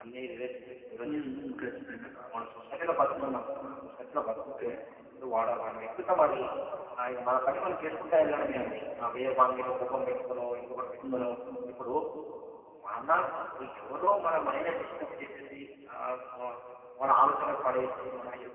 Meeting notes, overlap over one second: none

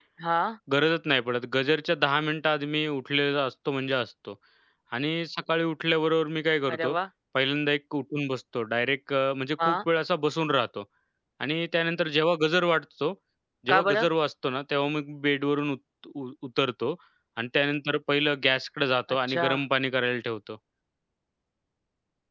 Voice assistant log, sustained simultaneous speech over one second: none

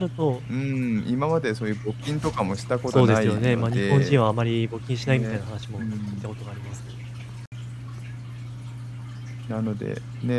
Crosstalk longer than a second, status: present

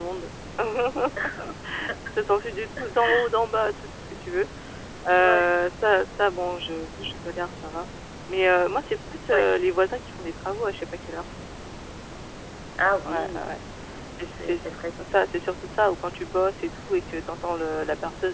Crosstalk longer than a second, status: none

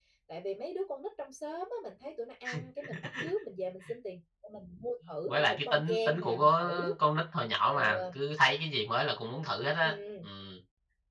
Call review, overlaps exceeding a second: present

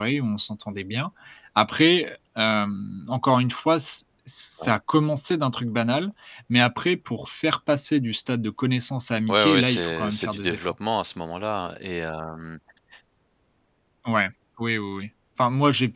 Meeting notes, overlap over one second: present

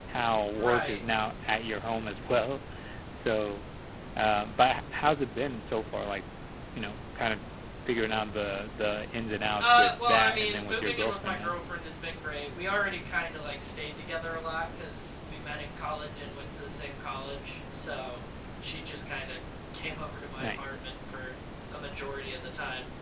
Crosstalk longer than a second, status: present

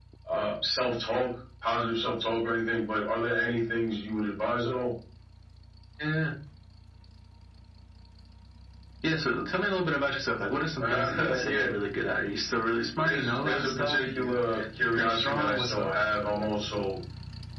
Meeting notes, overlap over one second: present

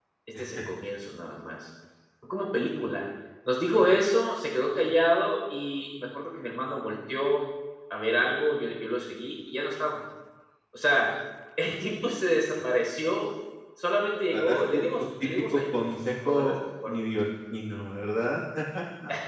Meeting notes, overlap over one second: present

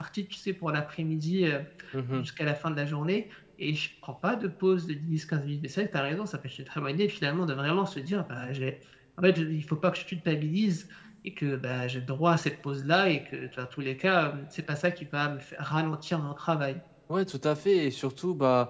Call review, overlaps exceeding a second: none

